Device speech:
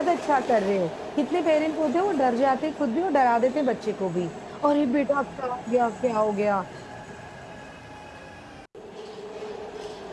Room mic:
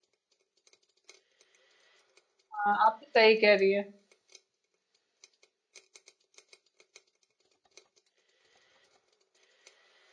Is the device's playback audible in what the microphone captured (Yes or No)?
No